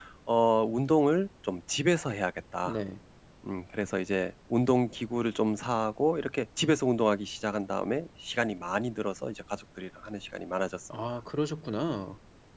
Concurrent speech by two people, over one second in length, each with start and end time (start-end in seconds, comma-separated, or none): none